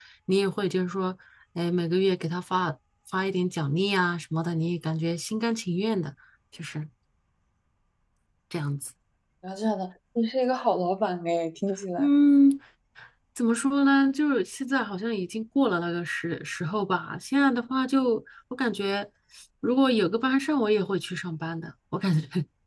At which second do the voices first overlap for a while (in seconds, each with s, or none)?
none